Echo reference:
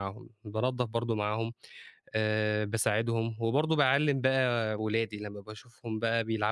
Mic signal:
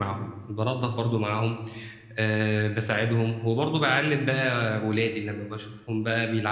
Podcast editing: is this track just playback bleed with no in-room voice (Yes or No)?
Yes